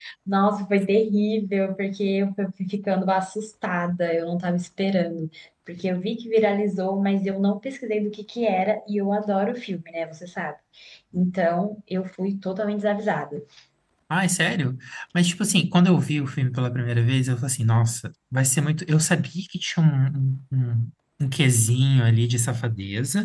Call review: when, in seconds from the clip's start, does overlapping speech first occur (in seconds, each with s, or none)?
none